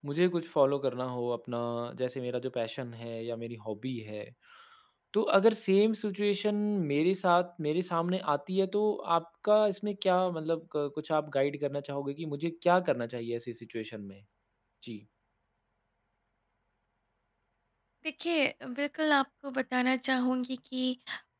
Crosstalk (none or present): none